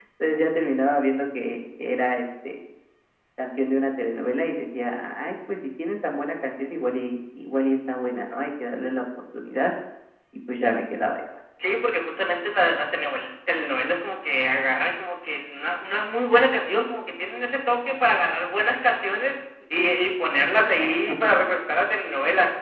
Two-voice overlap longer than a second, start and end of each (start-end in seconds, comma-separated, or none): none